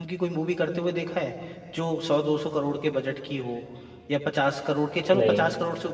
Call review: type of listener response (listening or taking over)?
listening